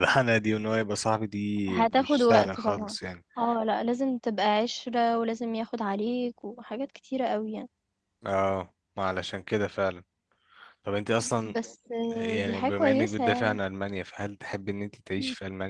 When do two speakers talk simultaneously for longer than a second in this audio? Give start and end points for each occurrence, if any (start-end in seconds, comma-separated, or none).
1.7-3.0, 12.1-13.6